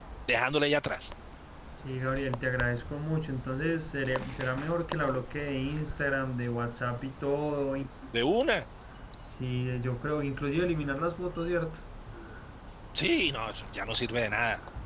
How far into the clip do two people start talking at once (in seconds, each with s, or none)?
none